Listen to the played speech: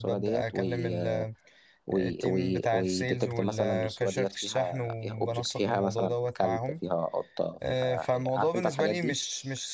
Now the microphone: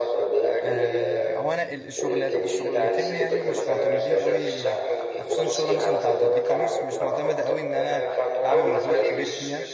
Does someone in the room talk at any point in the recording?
Yes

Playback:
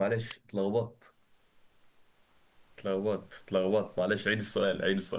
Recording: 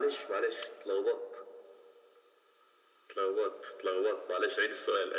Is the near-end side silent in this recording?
Yes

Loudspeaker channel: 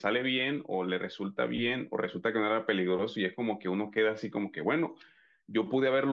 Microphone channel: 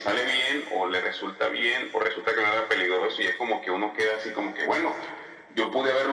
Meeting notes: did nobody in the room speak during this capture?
Yes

